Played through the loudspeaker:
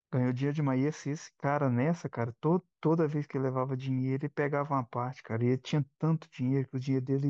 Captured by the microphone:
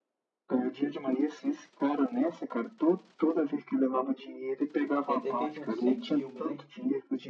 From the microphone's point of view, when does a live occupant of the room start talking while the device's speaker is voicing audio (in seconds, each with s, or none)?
5.0 s